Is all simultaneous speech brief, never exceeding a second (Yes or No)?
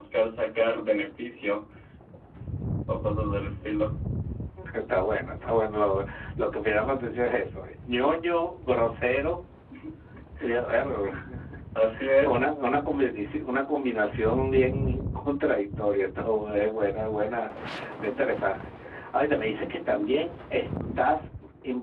Yes